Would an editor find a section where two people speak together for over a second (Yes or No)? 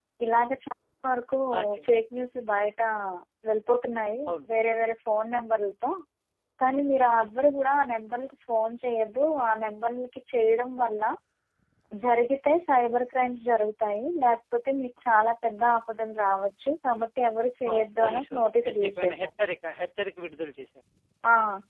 Yes